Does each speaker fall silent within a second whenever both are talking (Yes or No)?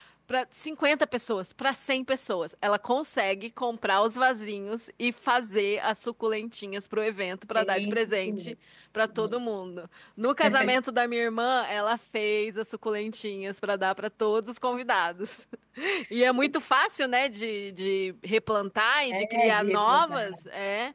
No